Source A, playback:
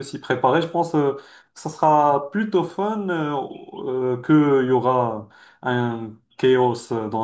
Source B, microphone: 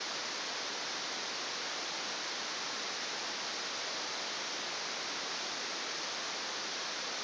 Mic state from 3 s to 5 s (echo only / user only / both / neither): neither